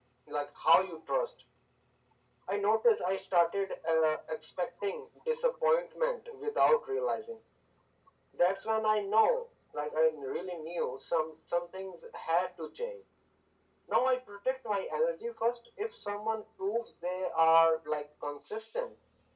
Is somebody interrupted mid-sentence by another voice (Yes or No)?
No